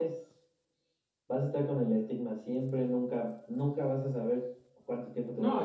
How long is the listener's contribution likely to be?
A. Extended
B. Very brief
A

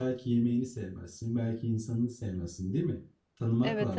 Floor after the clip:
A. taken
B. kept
A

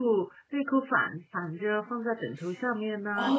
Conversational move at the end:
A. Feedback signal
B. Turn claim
B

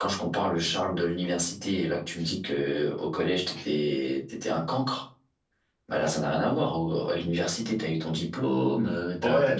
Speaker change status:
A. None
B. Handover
B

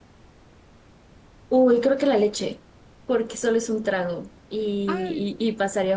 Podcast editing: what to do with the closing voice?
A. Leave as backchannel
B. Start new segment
A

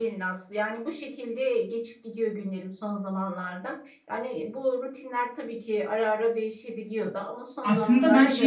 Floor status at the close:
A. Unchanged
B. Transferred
B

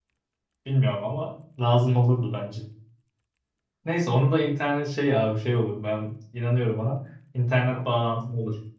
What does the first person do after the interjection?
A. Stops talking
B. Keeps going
B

